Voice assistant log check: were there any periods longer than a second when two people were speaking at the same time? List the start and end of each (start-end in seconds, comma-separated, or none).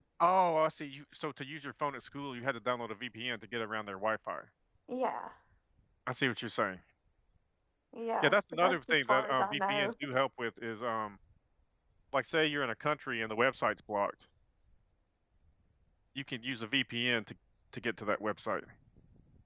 8.2-9.9